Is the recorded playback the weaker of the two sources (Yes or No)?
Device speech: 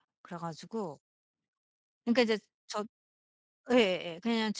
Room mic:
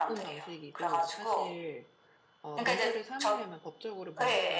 No